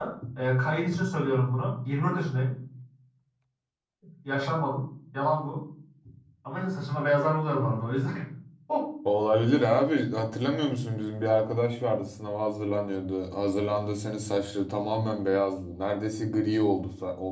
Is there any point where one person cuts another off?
No

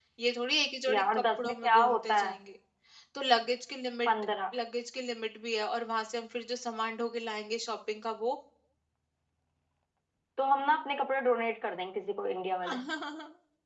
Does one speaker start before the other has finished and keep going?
Yes, from 0.9 s

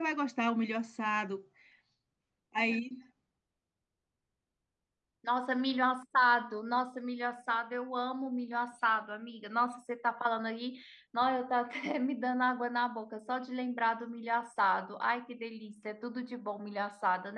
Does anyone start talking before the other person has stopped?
No

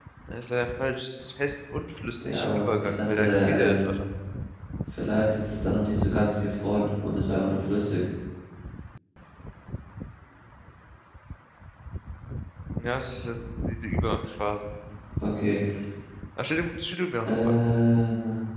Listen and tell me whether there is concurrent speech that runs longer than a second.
Yes, from 2.2 s

